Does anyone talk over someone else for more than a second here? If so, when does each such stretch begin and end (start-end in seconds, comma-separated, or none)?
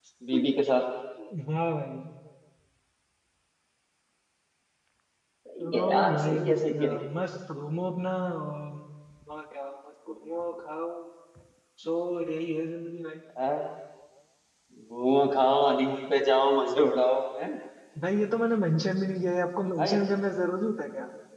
5.6-7.0